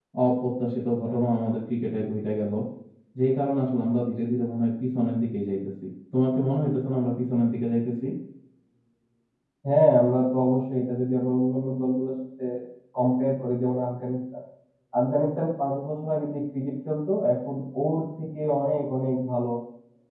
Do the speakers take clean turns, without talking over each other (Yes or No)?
Yes